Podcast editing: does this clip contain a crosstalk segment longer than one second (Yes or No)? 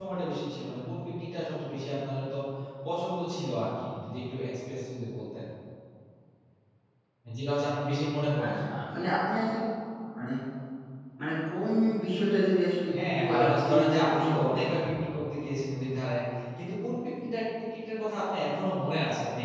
Yes